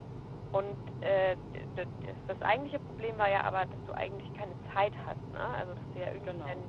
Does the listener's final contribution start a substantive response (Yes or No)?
No